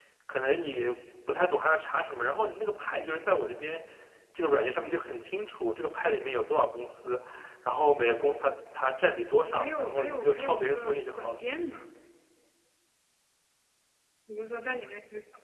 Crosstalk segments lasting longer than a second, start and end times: 9.5-11.4

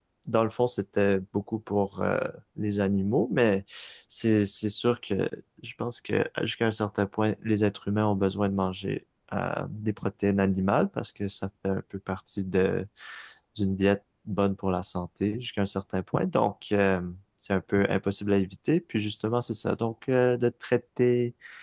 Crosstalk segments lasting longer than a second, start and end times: none

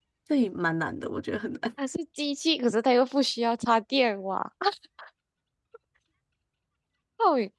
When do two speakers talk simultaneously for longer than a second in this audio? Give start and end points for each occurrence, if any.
none

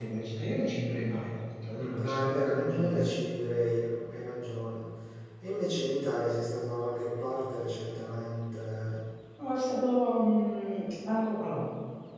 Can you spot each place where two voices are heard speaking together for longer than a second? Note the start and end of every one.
1.7-3.1

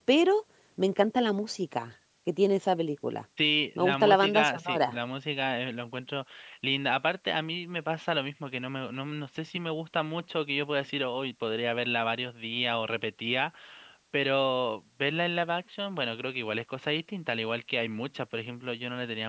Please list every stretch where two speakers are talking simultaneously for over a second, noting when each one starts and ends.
3.8-5.0

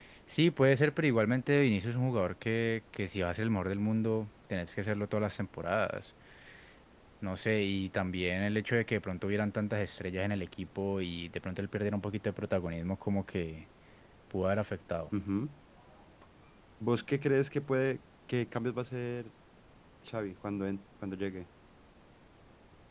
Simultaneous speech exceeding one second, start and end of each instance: none

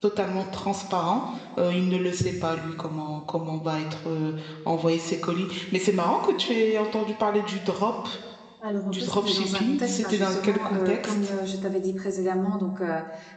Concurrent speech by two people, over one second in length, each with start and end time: 8.9-11.3

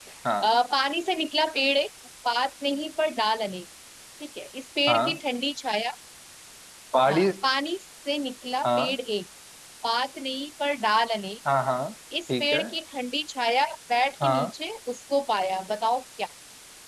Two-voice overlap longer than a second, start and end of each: none

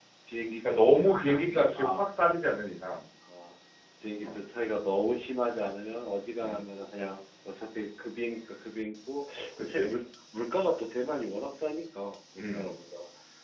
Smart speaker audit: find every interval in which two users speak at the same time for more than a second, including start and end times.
0.7-2.0

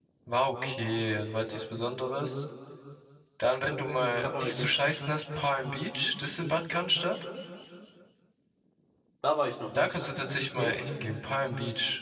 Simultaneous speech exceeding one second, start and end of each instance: none

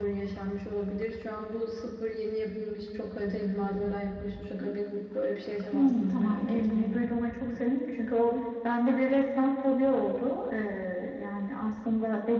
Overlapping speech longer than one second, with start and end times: 5.7-7.0

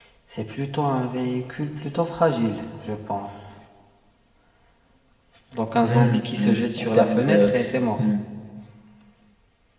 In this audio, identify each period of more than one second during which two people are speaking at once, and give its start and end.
5.8-7.5

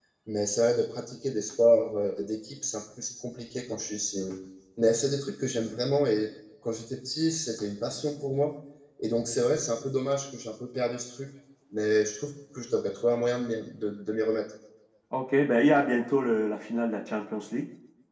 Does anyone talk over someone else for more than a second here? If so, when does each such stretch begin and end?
none

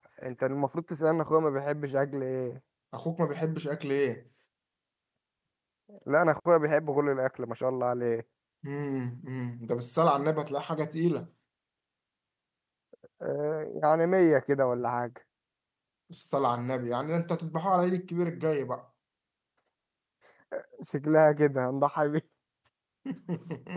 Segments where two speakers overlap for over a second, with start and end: none

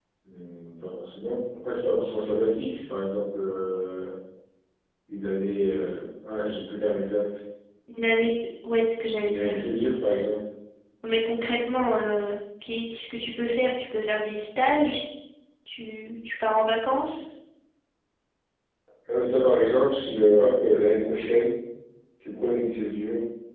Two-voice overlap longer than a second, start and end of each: none

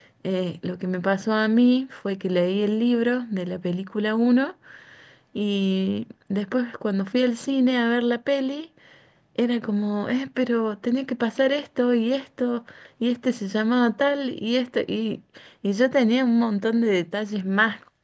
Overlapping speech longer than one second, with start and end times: none

